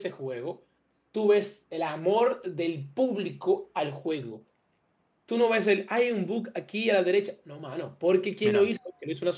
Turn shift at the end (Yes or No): No